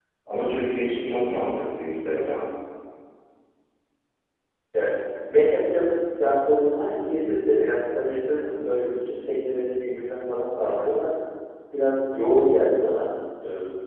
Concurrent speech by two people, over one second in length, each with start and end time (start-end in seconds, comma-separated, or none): none